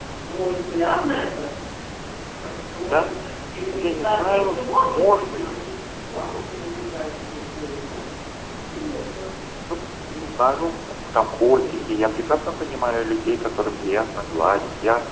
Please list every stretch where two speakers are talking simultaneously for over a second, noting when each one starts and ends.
3.7-5.5

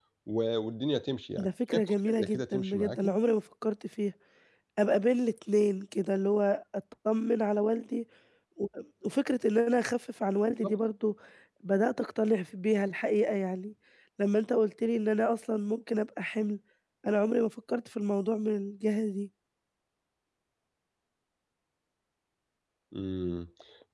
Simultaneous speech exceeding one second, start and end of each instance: 1.4-3.0

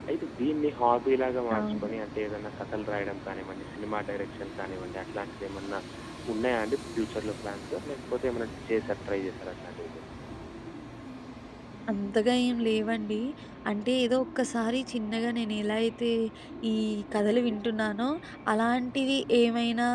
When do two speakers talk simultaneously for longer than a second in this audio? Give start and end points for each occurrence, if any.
none

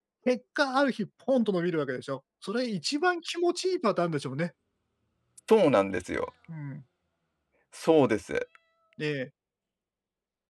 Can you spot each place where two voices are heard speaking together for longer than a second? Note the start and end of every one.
none

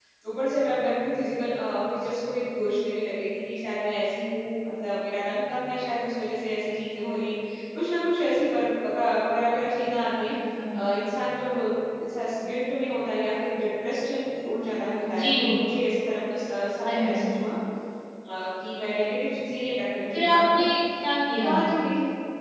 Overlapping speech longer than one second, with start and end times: none

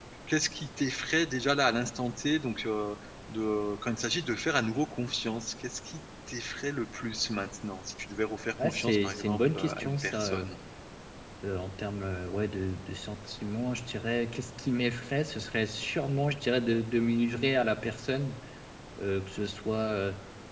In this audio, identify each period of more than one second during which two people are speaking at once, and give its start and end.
8.6-10.5

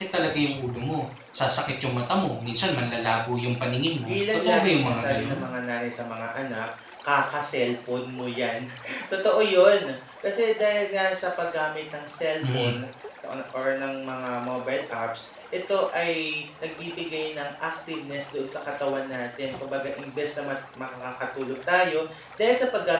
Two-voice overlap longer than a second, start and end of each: 4.1-5.4

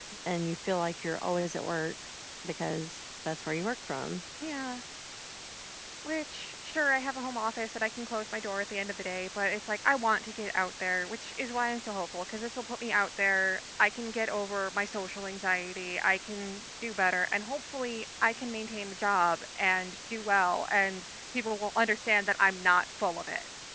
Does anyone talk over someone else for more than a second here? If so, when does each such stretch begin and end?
none

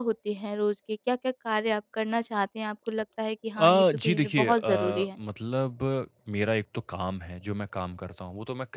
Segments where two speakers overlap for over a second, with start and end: 3.6-5.1

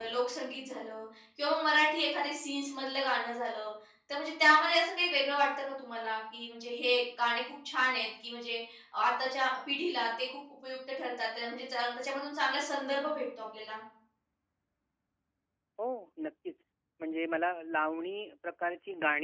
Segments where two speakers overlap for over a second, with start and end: none

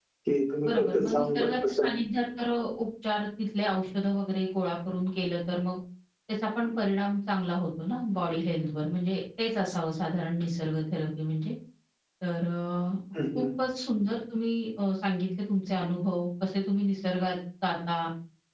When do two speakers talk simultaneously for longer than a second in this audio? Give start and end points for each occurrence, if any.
0.6-1.9

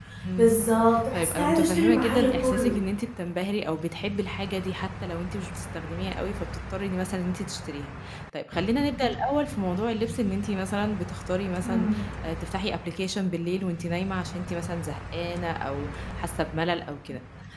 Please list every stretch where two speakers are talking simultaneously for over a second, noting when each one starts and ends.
1.1-2.8

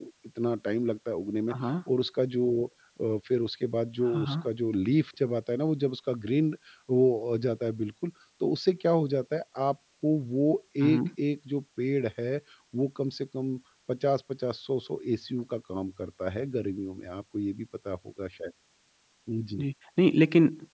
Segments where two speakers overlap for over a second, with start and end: none

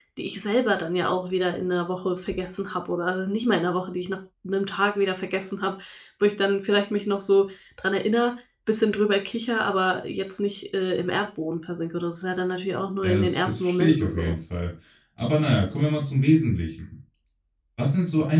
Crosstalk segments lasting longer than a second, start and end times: 13.0-14.4

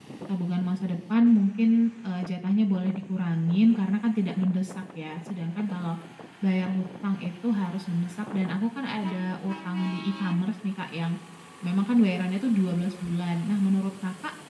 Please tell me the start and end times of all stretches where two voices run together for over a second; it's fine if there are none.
none

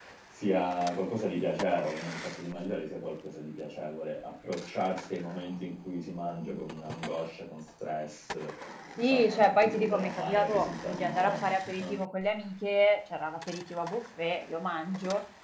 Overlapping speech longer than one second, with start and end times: 9.0-11.9

